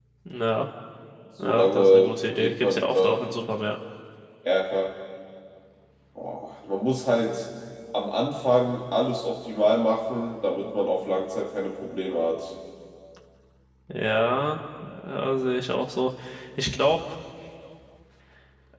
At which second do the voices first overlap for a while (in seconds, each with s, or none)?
1.4 s